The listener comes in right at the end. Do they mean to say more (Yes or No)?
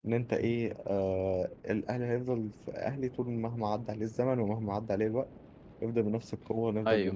No